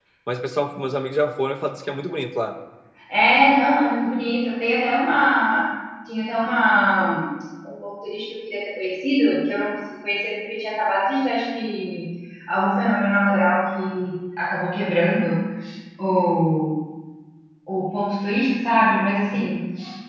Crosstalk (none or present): none